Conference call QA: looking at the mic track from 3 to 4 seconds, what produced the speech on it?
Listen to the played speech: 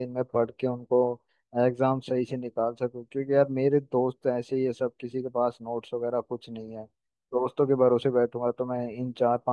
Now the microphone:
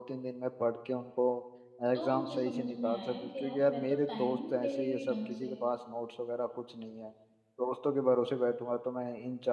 both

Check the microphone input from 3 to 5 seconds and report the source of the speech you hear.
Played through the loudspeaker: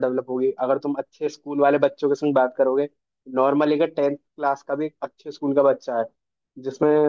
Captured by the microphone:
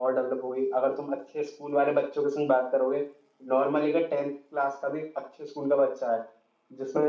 echo only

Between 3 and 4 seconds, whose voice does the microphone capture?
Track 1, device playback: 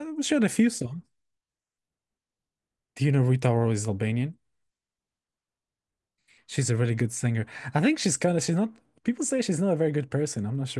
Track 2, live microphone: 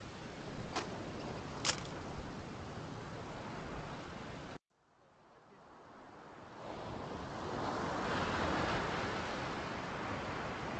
neither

